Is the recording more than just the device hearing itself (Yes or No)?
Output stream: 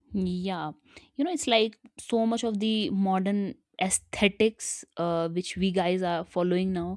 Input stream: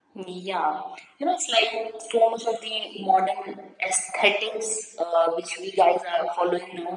No